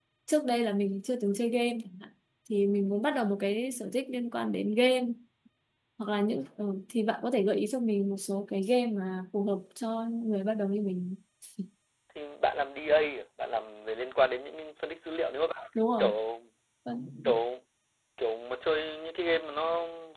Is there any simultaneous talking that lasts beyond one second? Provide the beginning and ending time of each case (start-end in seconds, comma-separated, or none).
none